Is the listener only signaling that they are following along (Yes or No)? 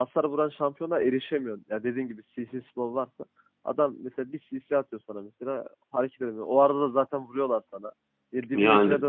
Yes